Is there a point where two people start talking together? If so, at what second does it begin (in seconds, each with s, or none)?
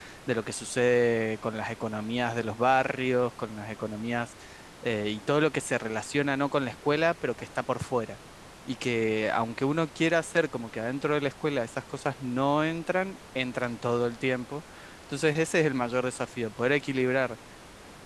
none